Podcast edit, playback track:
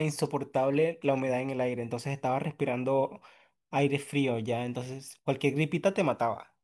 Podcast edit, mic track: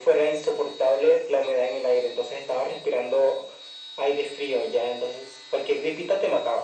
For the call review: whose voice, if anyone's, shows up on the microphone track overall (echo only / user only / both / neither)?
echo only